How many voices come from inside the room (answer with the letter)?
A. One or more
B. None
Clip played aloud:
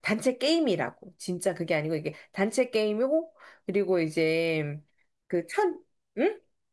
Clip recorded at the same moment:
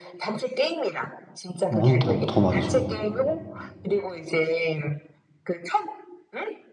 A